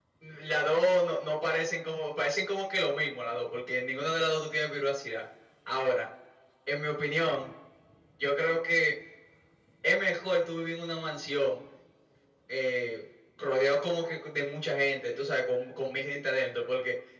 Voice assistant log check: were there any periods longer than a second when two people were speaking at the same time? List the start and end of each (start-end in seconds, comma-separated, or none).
none